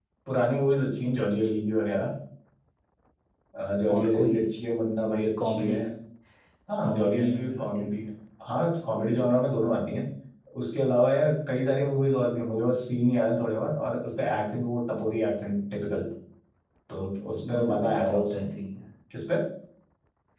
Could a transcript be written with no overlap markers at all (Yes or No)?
No